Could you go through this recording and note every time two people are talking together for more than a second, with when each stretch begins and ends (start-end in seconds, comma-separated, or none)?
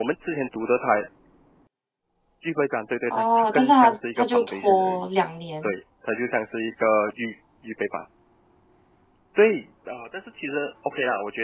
3.1-5.1